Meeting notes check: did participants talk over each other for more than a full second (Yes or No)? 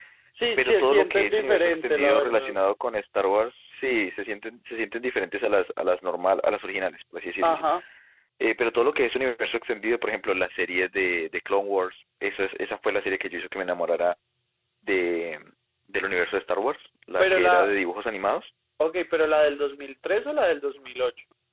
Yes